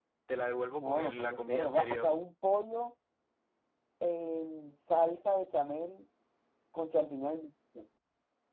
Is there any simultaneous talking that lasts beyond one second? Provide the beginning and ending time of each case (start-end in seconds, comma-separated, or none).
0.7-2.1